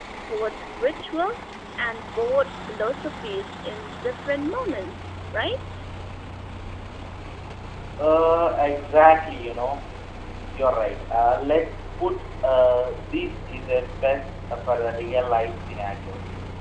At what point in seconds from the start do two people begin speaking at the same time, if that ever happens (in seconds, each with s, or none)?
none